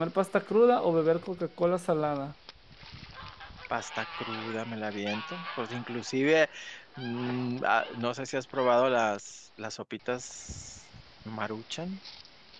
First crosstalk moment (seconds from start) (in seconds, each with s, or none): none